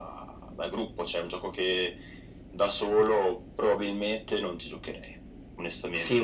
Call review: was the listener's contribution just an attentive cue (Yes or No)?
No